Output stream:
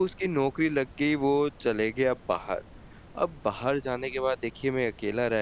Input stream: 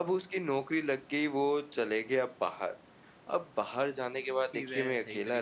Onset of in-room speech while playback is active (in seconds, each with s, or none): 4.5 s